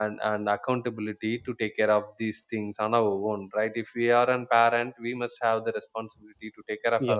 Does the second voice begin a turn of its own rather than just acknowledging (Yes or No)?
No